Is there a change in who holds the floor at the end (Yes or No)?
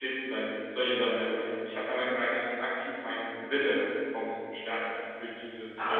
Yes